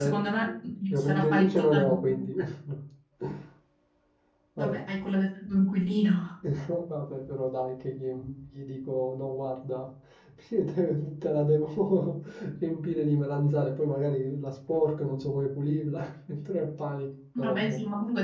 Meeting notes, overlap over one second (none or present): present